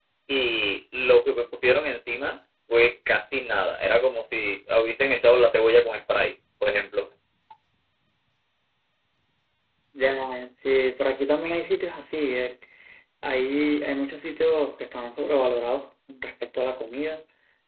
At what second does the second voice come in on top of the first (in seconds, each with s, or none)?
none